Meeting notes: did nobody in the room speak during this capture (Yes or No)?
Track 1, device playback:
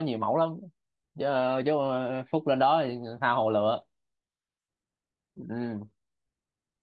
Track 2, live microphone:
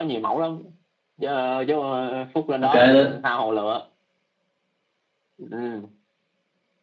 No